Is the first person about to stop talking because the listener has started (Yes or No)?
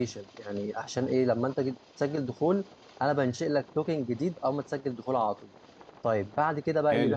Yes